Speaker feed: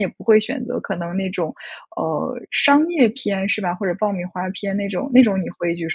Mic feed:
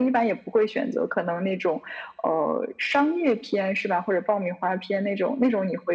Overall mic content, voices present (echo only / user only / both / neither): echo only